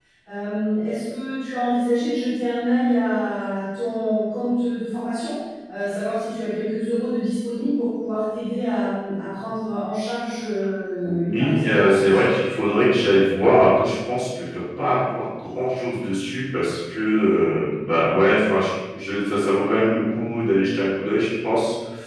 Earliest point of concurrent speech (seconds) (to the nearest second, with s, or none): 11 s